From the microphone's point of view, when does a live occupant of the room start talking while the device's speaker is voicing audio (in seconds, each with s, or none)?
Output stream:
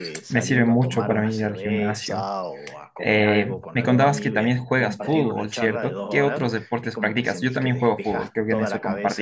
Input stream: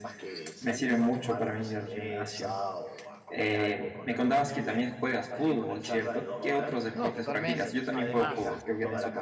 6.9 s